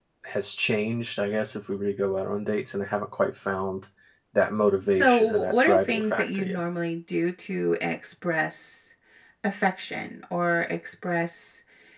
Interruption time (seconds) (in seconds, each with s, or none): 5.0 s